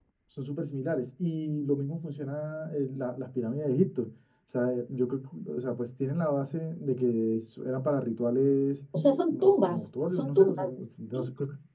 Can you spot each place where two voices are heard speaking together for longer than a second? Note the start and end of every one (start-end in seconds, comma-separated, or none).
9.3-10.7